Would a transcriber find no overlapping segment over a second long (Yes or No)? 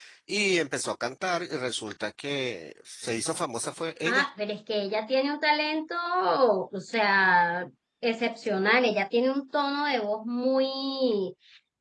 Yes